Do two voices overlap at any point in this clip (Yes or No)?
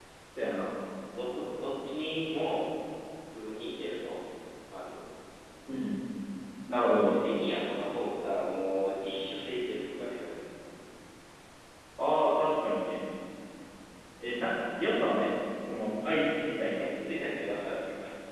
No